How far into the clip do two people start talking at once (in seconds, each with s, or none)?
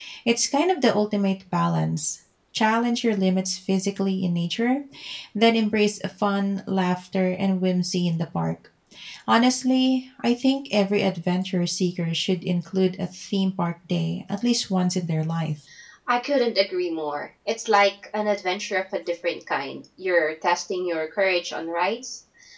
none